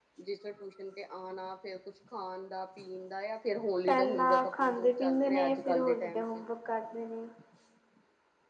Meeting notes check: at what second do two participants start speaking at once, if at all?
4 s

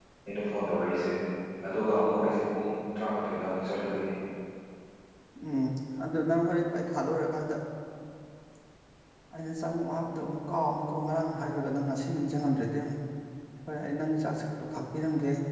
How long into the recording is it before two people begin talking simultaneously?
none

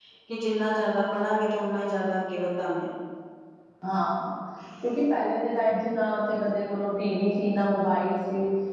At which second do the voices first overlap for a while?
none

